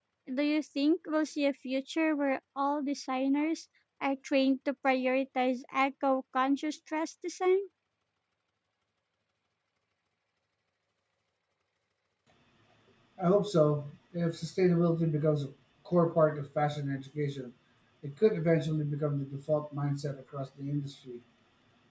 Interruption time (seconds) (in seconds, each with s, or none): none